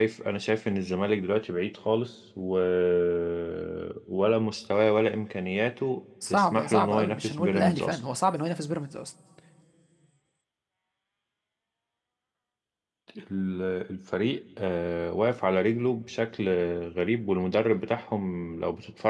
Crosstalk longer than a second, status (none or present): present